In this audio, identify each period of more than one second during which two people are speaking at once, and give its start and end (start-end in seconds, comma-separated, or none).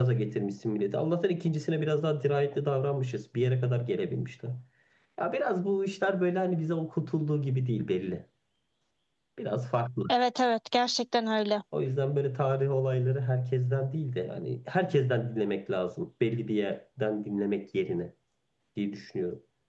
none